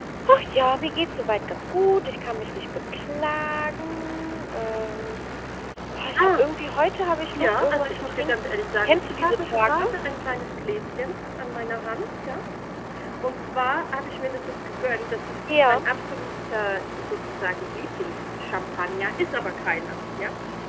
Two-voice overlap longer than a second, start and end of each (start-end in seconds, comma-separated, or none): 7.4-9.9